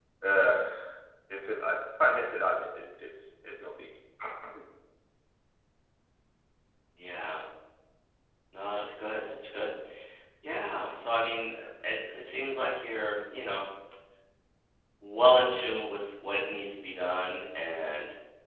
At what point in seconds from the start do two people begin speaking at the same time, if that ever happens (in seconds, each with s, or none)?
none